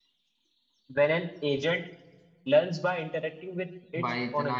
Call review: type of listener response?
taking over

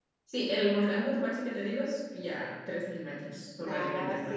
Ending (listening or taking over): taking over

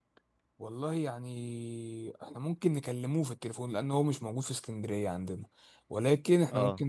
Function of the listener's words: listening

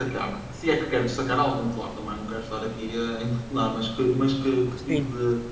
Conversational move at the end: listening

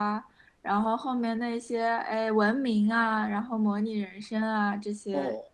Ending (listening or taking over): listening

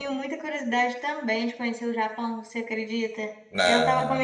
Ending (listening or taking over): listening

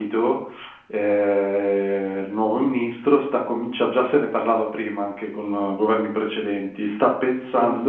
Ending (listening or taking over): listening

